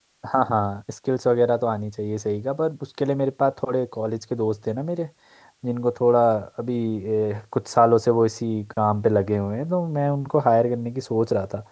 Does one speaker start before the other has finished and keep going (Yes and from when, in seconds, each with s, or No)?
No